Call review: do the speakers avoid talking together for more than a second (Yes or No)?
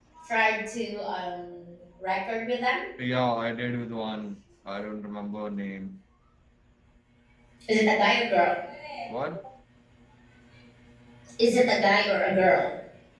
Yes